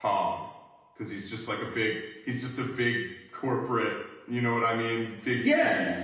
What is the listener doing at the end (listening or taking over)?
taking over